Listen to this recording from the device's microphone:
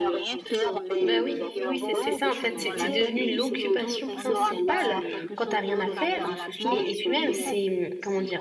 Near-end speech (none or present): present